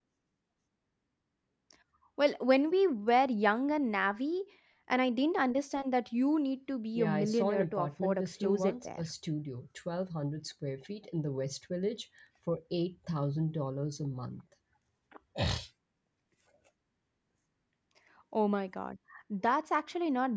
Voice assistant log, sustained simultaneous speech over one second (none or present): present